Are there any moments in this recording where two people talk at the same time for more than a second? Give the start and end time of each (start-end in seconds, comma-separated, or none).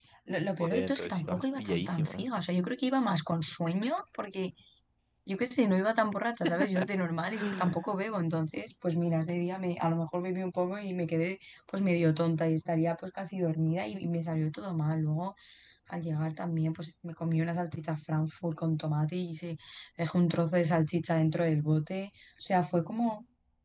0.6-2.3